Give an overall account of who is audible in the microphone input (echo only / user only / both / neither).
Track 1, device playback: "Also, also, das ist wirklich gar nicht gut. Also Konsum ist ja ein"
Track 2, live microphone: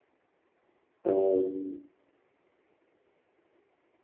user only